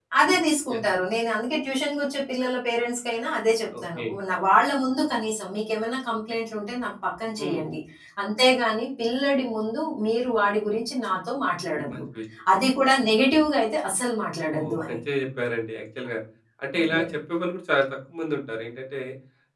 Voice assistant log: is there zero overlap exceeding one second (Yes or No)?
Yes